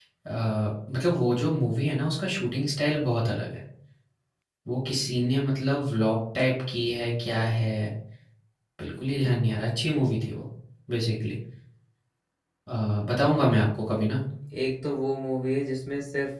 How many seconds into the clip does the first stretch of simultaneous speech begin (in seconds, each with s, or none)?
none